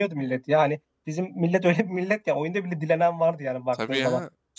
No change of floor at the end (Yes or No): No